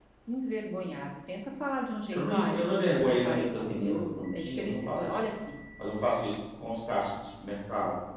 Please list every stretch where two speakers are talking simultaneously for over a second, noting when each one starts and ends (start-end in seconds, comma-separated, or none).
2.1-5.2